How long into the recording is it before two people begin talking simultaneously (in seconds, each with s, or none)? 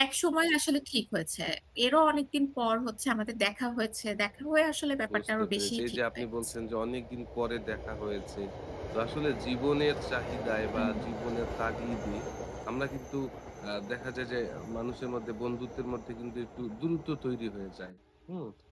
5.3 s